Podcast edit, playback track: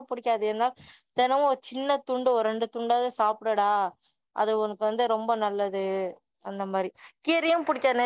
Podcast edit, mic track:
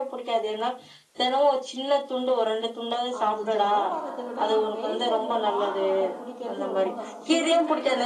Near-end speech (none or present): present